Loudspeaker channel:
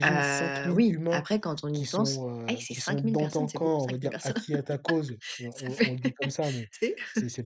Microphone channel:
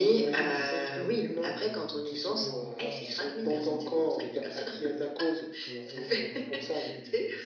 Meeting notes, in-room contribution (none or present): present